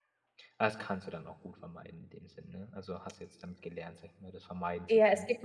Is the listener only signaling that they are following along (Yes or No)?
No